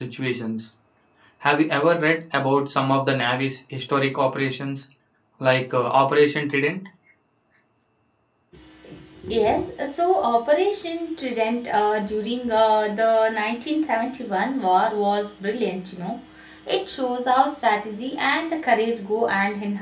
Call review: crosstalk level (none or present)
none